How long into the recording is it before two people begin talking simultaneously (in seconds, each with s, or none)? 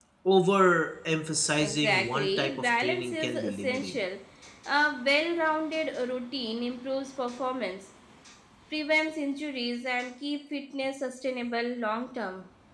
1.4 s